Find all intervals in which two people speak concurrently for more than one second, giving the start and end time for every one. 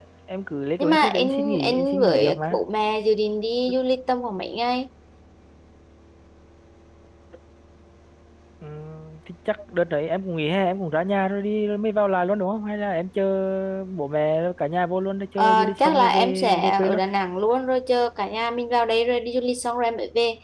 0.8-2.6, 15.4-17.0

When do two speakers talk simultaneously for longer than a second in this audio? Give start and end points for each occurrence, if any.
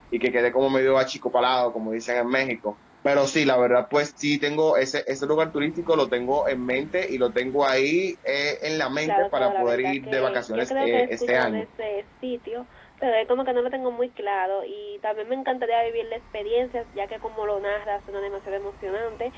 9.1-11.7

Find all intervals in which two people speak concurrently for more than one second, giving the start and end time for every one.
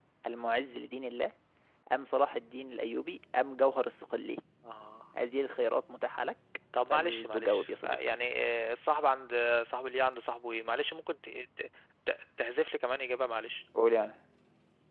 6.9-8.2

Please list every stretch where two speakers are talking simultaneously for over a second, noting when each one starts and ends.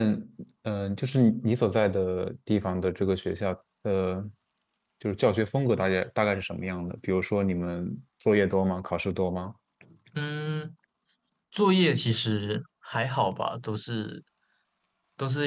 none

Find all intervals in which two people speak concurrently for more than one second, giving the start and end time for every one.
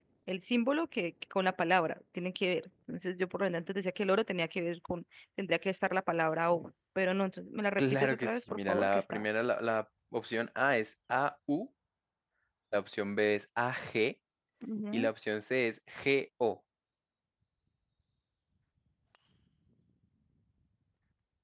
7.8-9.2

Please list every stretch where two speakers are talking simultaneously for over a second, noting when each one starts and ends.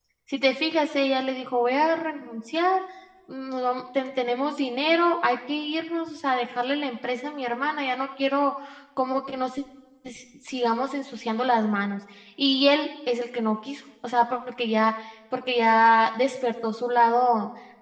none

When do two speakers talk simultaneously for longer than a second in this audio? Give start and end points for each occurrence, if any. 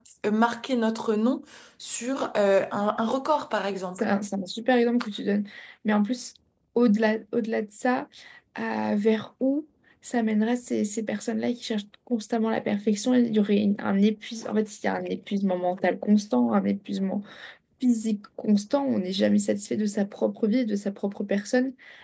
none

